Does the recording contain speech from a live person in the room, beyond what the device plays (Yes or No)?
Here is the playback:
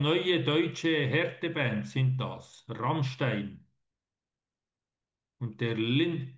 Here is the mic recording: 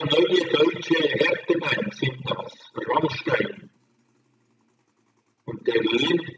No